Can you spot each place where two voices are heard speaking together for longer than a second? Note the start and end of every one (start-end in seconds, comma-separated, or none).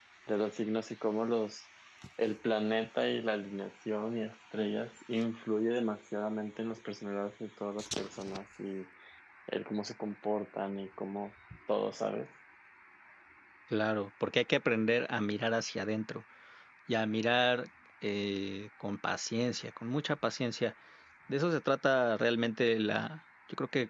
none